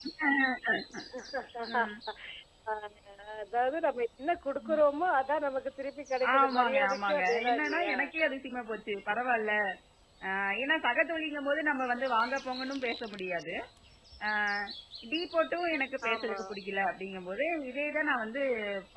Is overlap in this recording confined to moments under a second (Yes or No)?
No